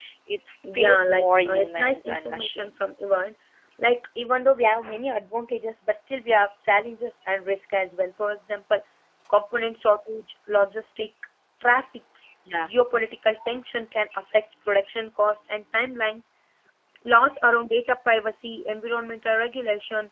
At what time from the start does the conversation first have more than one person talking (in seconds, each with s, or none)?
0.7 s